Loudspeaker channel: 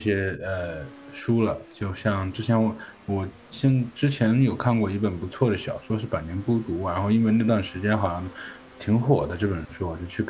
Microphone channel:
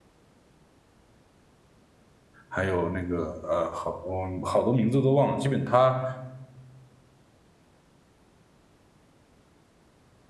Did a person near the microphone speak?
Yes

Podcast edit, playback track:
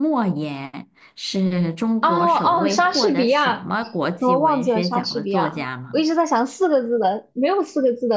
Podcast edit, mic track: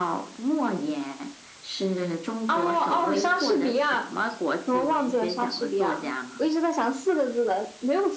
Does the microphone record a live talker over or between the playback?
No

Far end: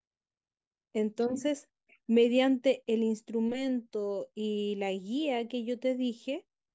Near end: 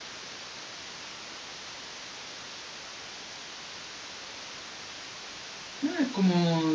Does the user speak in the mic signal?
Yes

